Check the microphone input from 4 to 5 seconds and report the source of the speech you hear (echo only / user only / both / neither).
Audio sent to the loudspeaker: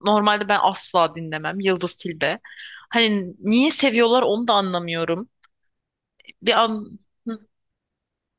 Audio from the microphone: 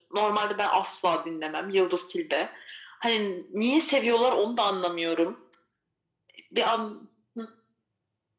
echo only